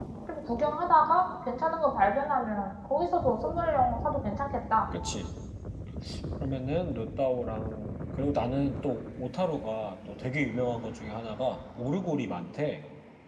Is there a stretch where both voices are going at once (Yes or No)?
No